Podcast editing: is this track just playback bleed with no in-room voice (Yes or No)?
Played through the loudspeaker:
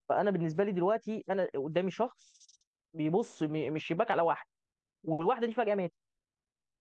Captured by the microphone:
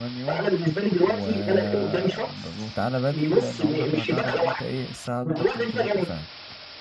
No